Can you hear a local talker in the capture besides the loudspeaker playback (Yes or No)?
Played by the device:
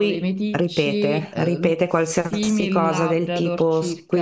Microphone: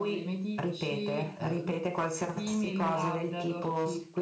No